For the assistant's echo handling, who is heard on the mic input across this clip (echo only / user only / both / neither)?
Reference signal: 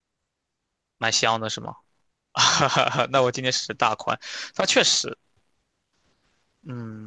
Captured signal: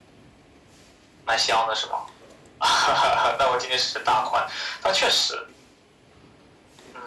echo only